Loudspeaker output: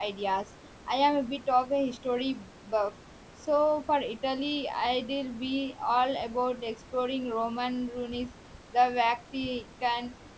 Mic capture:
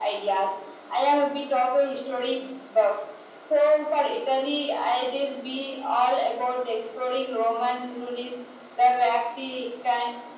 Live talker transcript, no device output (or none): none